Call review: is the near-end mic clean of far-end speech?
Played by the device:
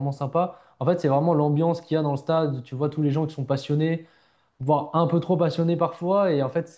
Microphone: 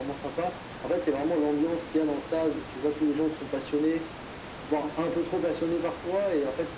No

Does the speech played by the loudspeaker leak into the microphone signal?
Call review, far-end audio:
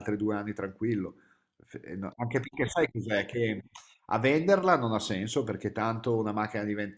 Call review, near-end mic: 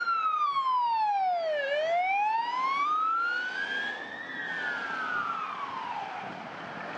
No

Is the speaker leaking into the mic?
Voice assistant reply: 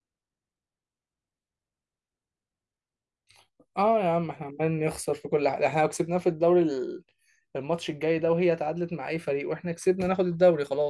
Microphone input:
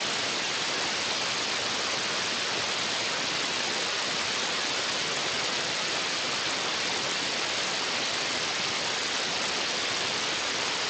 No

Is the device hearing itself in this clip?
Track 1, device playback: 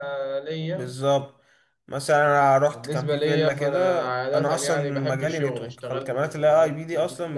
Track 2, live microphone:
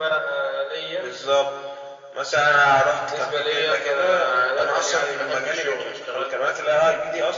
Yes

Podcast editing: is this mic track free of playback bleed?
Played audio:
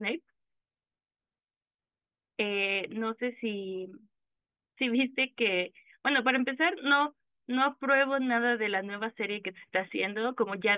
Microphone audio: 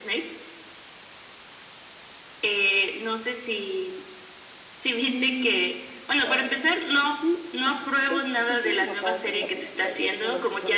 No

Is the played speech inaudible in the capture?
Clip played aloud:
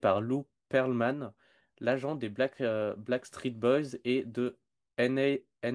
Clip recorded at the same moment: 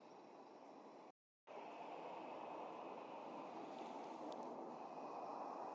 Yes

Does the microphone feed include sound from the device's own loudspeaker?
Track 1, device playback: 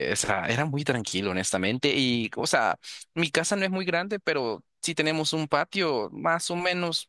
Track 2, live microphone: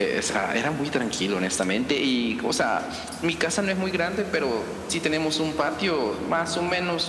Yes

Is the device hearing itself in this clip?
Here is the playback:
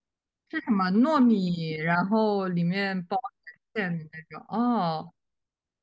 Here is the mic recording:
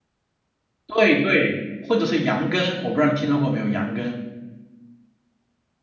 No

